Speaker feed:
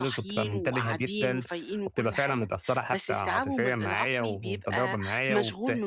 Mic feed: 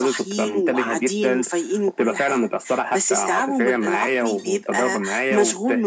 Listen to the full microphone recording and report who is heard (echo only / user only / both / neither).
echo only